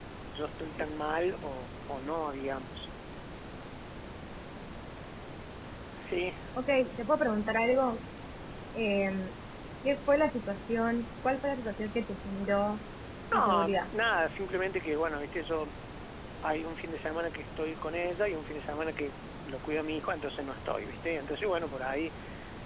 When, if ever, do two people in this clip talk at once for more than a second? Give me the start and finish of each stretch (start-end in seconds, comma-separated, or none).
none